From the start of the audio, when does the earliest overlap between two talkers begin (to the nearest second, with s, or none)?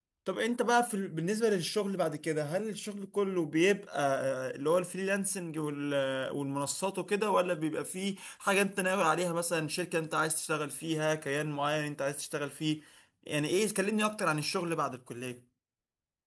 none